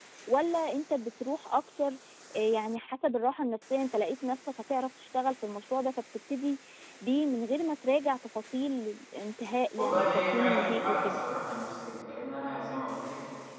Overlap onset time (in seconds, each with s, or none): 9.8 s